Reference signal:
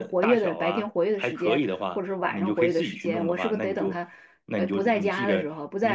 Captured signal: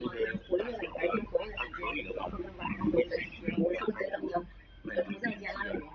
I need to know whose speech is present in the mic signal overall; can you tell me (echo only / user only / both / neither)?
echo only